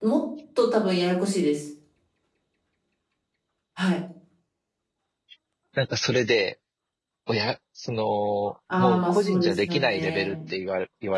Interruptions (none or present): present